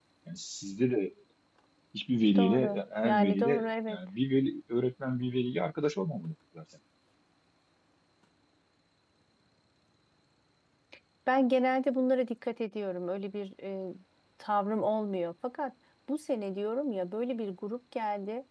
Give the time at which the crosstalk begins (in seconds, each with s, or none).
2.4 s